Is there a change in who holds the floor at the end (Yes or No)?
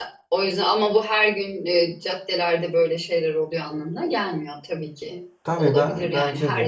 Yes